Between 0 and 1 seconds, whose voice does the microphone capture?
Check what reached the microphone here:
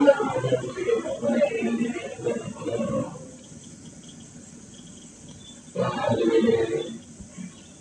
echo only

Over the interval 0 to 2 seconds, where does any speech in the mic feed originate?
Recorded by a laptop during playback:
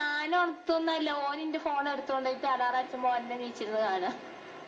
echo only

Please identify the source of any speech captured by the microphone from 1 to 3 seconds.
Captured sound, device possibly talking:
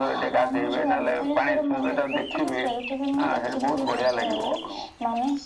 echo only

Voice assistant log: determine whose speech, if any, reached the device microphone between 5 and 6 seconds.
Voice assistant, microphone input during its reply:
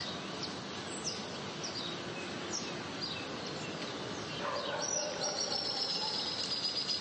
neither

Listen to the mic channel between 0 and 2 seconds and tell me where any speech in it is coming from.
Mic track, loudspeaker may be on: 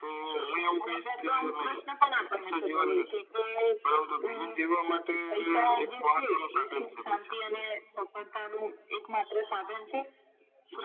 echo only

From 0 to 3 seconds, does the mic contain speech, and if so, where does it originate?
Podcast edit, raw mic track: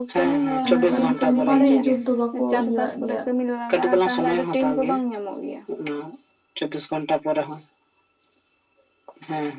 both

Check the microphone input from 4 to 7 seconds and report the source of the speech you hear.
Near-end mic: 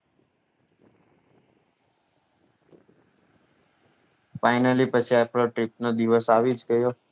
user only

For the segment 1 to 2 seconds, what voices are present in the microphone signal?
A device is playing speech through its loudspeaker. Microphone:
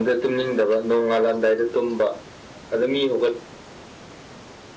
echo only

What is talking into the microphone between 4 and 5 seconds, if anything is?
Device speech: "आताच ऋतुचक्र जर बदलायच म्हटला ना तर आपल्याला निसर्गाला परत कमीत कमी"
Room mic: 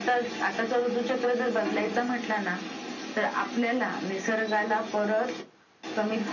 echo only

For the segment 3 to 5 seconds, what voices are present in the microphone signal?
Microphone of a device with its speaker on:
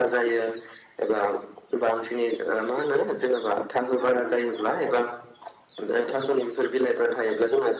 both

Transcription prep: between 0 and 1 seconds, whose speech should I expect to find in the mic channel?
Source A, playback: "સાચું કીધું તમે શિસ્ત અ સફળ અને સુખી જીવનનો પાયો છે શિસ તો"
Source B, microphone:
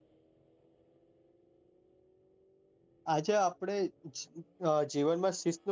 neither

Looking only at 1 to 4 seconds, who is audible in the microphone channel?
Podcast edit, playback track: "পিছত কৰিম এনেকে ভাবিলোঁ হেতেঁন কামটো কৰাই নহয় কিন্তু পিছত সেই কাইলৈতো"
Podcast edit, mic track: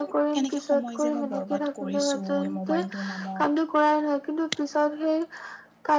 both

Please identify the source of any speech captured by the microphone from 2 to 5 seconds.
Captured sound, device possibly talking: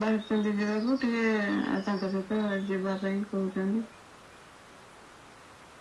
echo only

